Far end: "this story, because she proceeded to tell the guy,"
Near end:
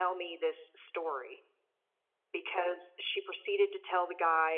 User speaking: No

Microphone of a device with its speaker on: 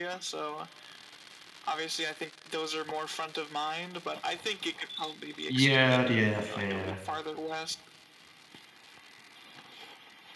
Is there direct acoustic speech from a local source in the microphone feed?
Yes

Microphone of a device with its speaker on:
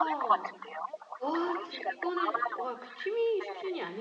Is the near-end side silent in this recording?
No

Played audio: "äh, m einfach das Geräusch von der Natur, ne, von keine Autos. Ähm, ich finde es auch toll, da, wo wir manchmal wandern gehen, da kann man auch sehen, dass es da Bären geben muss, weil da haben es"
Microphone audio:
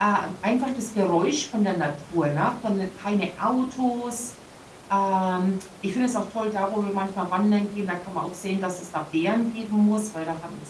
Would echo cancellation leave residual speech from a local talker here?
No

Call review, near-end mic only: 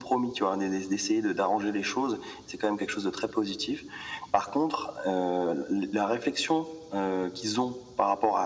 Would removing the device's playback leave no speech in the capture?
Yes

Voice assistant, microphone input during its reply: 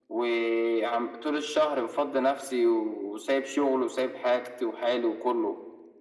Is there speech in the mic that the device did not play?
No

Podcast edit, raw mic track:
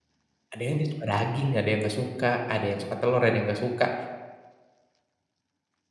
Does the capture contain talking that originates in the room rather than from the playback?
Yes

